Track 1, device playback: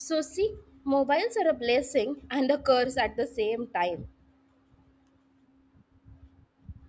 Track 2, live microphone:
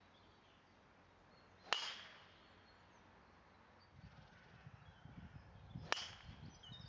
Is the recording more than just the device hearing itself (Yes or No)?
No